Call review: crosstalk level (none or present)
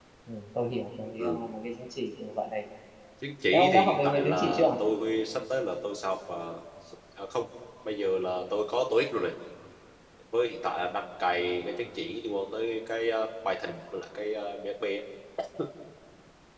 present